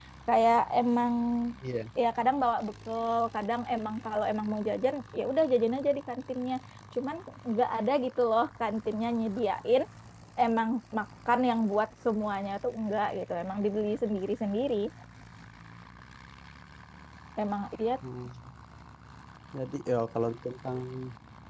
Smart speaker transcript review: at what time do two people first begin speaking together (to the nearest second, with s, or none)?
none